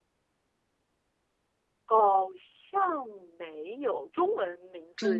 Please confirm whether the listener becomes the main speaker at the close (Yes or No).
Yes